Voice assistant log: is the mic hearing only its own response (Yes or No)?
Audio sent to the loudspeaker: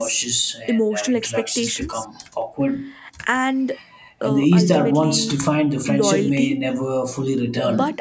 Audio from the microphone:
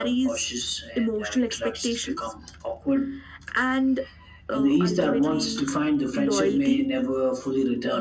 Yes